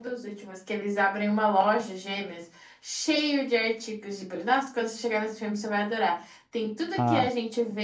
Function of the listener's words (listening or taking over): listening